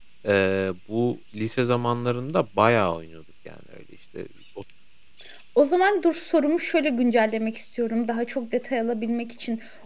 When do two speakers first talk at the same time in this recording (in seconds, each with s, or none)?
none